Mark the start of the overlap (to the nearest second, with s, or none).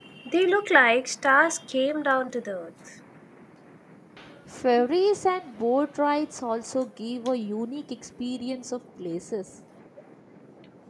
none